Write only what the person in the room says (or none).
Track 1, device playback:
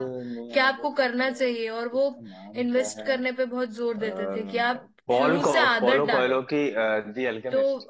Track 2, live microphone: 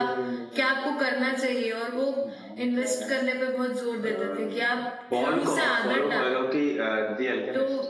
none